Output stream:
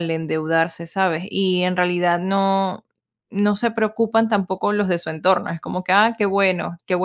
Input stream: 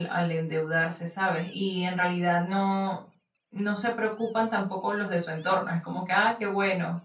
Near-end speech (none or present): none